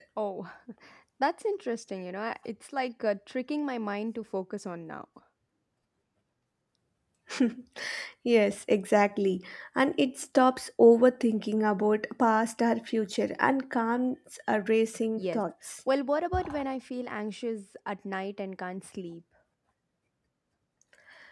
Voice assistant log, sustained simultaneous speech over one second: none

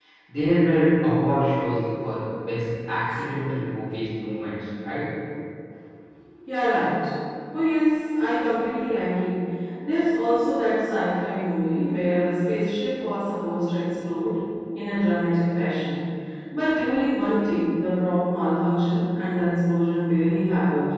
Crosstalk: none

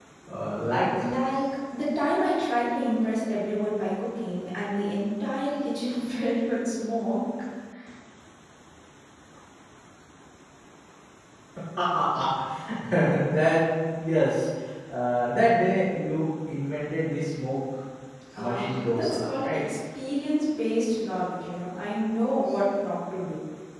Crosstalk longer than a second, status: present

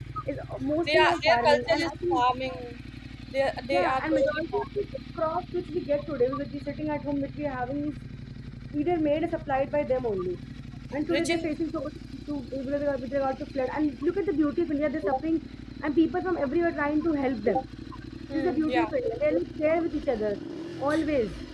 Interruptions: present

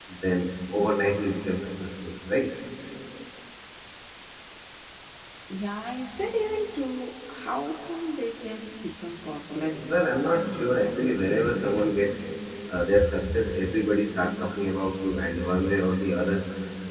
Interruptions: present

